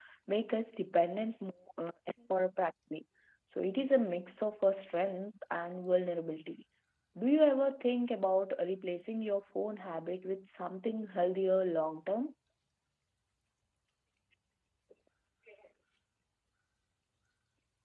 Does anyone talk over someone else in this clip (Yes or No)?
No